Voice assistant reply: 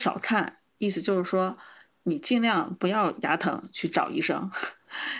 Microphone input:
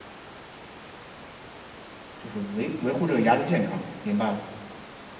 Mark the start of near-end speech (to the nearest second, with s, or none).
2 s